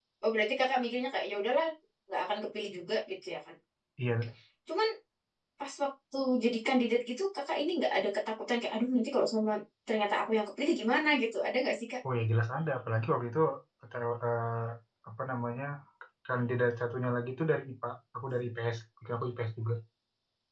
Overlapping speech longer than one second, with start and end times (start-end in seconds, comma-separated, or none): none